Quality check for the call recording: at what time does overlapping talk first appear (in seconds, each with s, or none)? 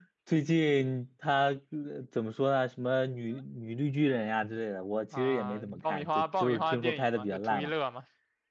5.1 s